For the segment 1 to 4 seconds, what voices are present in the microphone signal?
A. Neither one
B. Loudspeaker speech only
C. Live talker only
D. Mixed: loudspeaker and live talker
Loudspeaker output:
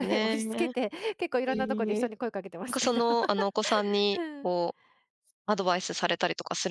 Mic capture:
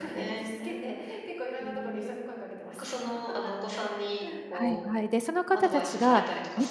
B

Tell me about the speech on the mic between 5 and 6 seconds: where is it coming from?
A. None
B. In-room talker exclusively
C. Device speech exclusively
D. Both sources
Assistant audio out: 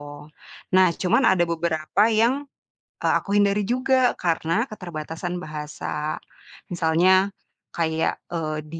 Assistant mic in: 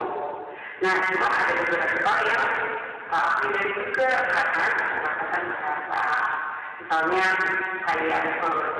C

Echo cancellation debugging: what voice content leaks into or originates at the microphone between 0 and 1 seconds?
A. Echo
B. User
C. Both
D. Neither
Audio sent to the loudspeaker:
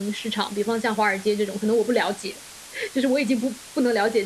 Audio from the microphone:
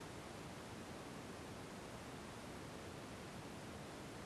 D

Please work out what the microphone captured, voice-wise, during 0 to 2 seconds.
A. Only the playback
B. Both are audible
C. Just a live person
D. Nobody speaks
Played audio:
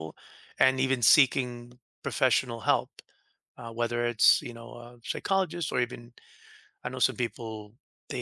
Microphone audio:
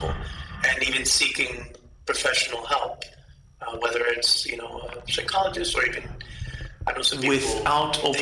A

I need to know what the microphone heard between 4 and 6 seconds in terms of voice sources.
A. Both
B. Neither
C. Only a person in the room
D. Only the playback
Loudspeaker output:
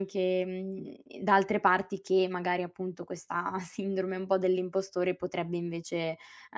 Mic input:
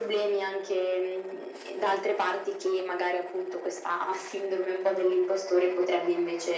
D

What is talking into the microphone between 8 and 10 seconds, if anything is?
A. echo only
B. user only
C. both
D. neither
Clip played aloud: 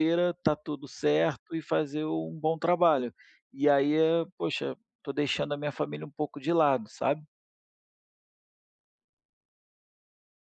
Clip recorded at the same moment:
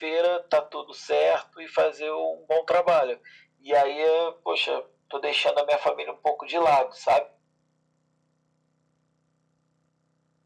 D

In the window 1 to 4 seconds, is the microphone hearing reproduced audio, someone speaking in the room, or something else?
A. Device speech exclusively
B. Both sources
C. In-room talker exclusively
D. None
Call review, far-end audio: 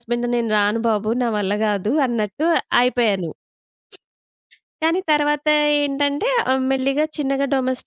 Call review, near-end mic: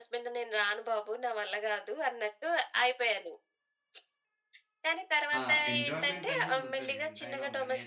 A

